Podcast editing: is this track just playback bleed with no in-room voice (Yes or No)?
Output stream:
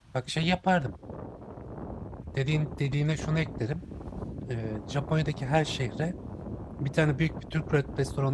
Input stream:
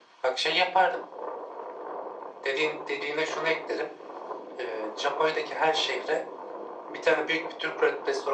Yes